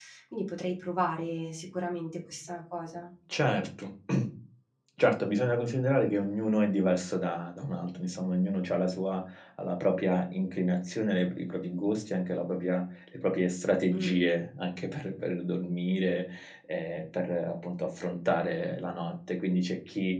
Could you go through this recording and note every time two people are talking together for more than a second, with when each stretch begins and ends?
none

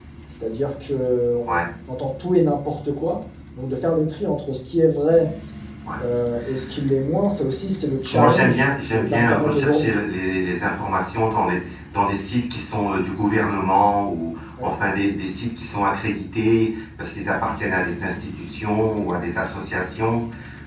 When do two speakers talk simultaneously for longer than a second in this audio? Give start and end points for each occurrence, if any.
8.1-9.9

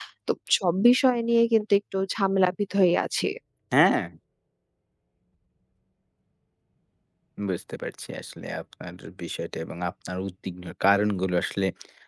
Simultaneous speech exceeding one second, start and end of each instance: none

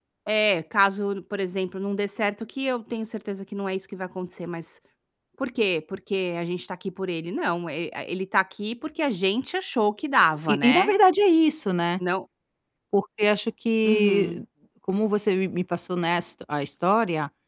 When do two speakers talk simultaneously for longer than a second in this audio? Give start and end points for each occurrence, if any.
none

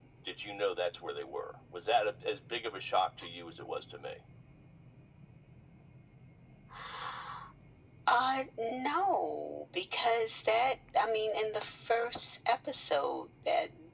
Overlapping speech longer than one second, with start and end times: none

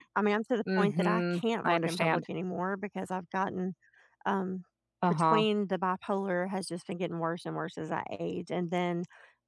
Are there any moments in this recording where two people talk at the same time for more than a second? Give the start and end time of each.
0.8-2.2

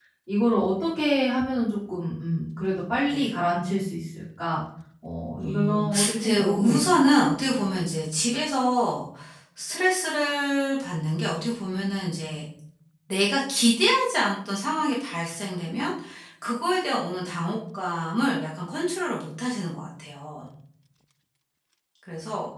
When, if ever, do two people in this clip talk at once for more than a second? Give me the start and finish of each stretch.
5.4-6.8

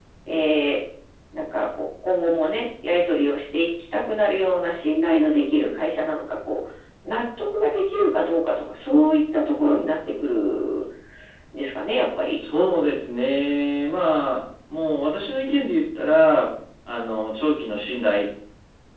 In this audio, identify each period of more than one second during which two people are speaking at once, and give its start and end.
none

